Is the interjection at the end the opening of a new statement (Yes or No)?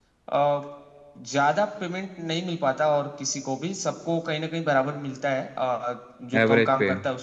No